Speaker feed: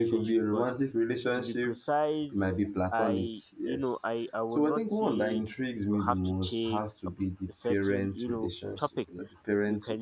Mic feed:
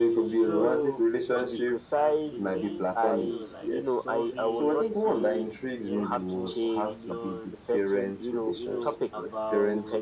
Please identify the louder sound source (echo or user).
echo